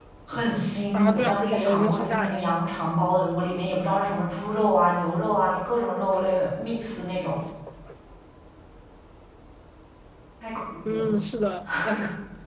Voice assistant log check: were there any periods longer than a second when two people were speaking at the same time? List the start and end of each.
0.9-2.5

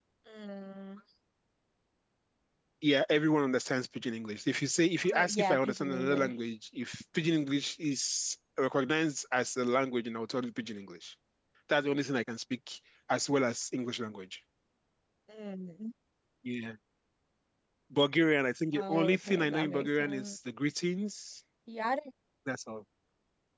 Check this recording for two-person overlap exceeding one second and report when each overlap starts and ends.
5.0-6.3, 18.7-20.4

